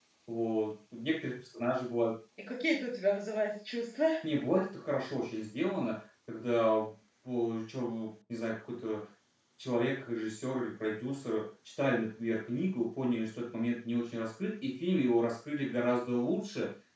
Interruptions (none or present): none